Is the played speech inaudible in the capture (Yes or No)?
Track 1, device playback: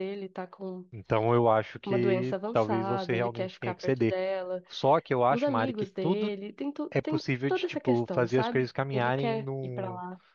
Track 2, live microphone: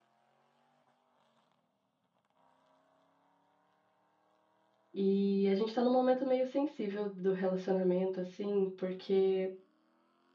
Yes